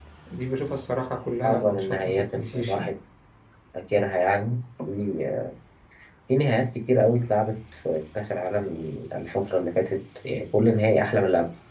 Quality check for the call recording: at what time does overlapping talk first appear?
1.4 s

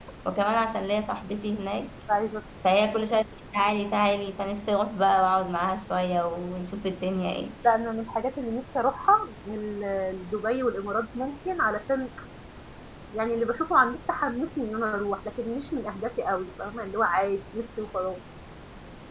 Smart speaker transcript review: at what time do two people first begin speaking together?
none

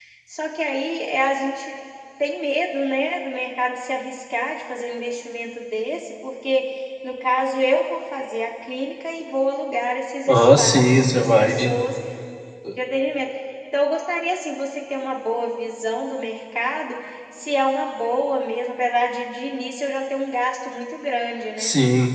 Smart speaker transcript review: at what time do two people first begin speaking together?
10.3 s

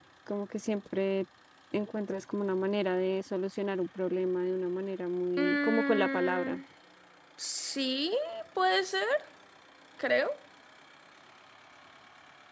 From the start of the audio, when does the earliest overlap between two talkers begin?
5.4 s

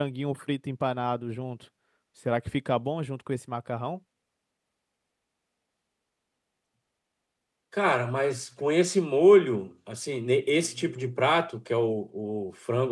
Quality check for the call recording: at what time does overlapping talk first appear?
none

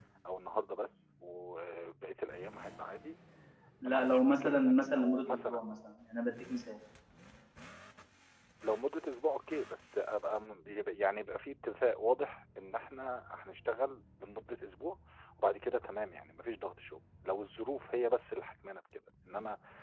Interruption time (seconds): 3.9 s

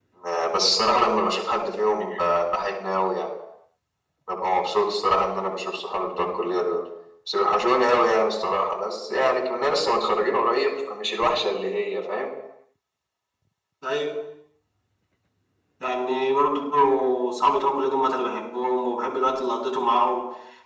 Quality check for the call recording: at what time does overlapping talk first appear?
none

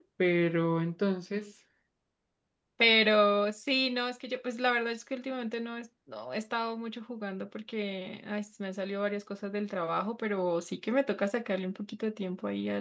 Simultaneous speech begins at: none

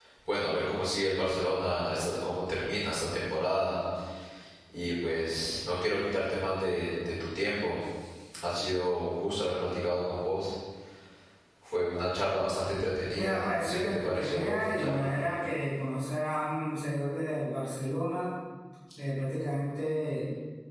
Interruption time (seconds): 13.2 s

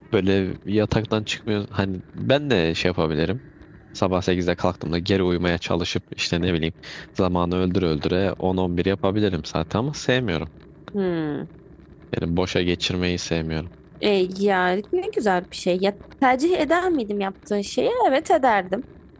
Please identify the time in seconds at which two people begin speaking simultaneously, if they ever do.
none

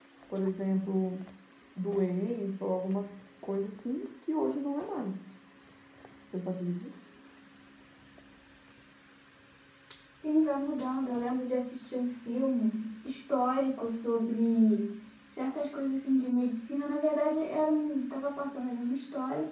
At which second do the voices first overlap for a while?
none

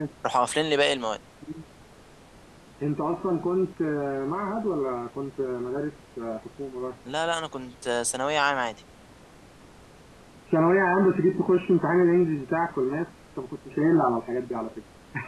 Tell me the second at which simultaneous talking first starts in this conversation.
none

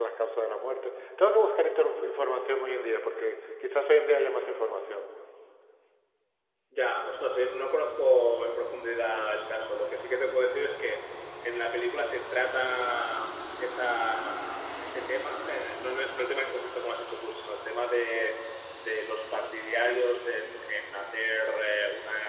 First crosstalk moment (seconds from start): none

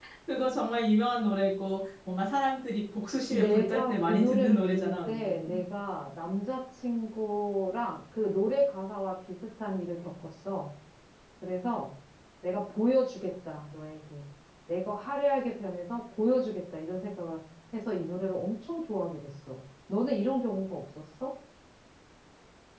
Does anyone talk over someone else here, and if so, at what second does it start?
3.3 s

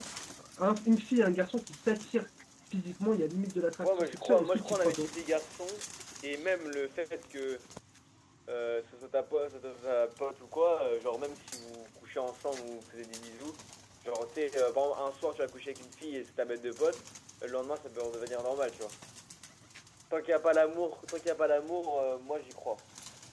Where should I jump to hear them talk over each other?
3.8 s

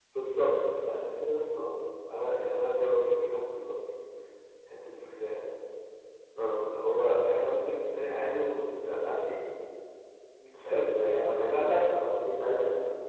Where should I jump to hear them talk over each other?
10.6 s

